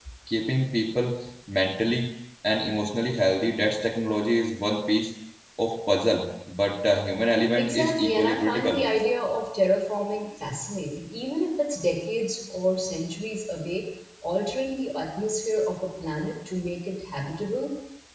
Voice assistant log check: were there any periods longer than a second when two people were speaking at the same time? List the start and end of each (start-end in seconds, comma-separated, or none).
7.6-8.8